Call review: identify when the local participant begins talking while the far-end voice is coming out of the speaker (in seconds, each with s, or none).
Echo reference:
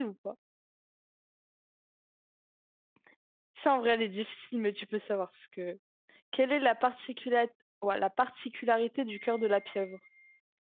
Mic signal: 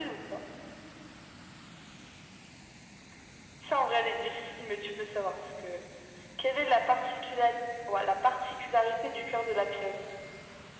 none